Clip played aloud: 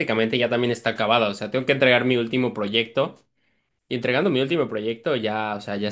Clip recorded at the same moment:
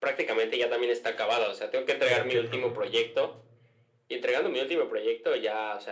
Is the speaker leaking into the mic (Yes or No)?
Yes